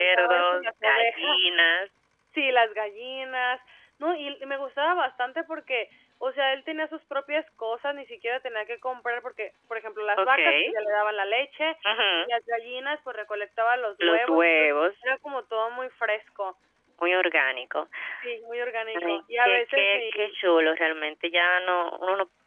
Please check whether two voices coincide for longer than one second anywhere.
Yes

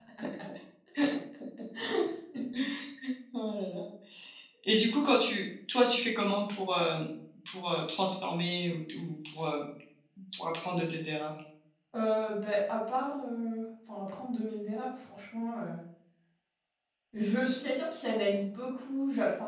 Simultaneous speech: No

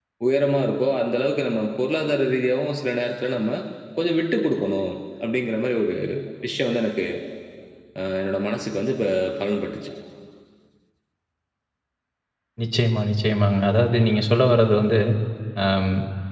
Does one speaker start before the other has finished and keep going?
No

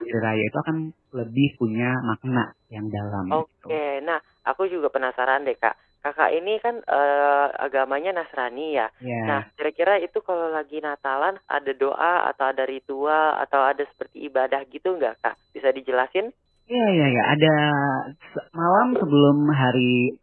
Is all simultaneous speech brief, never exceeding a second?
Yes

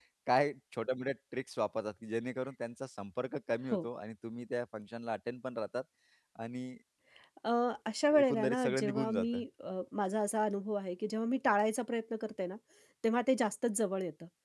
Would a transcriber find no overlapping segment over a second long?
No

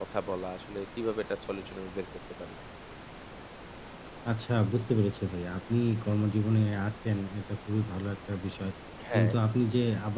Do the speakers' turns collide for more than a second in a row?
No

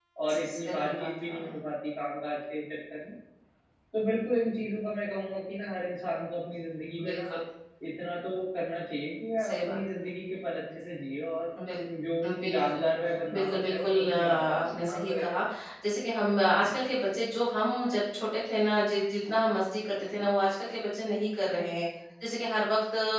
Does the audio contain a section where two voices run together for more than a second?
Yes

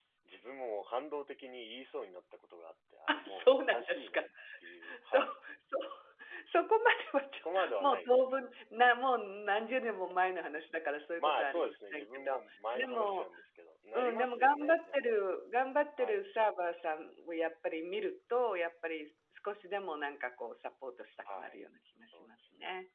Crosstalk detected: Yes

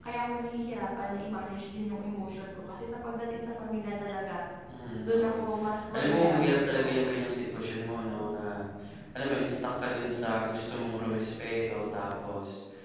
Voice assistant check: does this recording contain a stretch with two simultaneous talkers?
Yes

